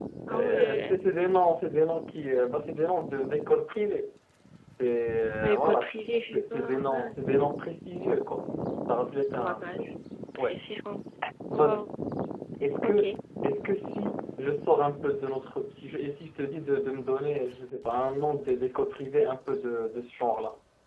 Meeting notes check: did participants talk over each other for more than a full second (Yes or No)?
Yes